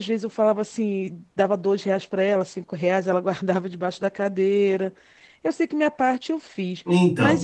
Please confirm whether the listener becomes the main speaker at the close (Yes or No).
Yes